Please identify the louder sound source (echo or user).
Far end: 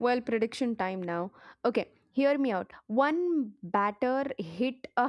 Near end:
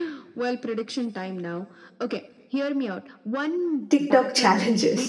user